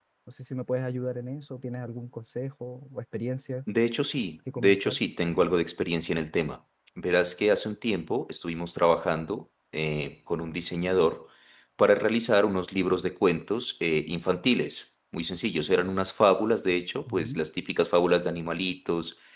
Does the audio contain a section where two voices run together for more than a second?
No

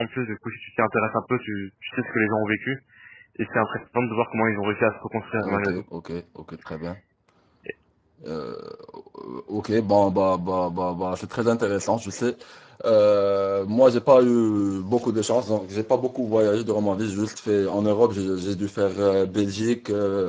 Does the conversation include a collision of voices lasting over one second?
No

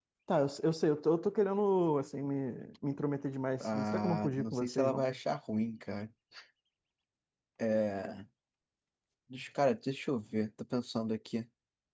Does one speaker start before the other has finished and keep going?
Yes, from 3.6 s

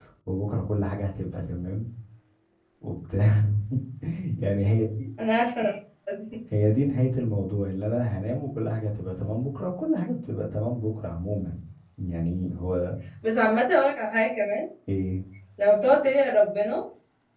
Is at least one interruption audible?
No

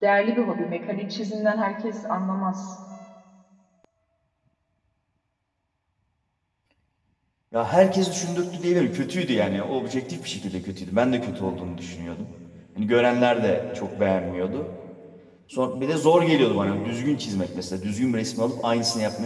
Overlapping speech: No

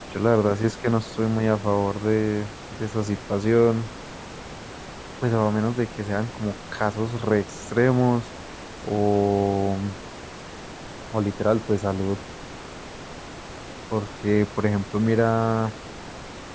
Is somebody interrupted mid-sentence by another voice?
No

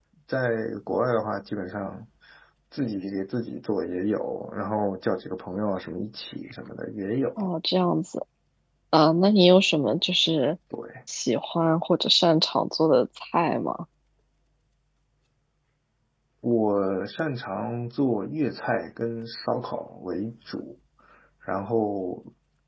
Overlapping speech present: No

